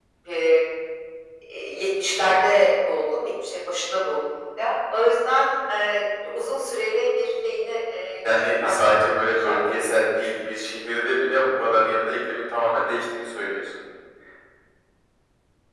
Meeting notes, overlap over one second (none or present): present